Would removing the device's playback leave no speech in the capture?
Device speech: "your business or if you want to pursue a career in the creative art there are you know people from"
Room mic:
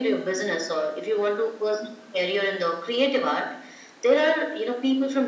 Yes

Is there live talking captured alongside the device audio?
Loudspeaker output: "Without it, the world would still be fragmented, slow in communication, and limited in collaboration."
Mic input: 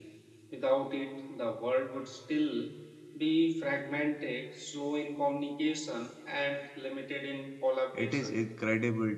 Yes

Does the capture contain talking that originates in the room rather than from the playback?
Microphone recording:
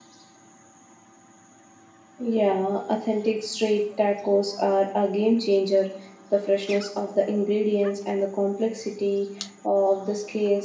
Yes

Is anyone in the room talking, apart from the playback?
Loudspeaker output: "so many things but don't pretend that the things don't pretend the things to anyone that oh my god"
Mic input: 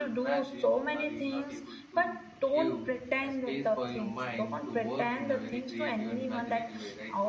Yes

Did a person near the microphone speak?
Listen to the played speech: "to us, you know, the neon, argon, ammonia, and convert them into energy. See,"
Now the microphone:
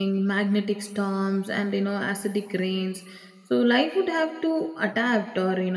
Yes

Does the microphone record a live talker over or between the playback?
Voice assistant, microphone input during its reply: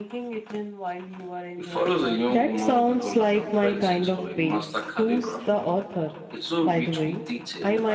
Yes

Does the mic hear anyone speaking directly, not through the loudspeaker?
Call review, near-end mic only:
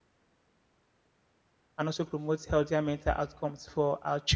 Yes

